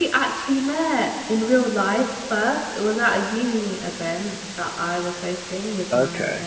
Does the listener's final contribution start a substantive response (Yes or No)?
No